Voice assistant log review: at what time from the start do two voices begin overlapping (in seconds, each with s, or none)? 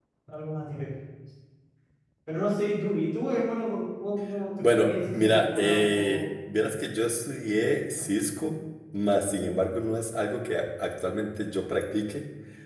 4.6 s